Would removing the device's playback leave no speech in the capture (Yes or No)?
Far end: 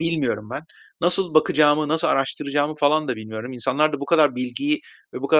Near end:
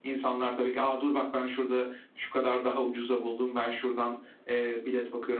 No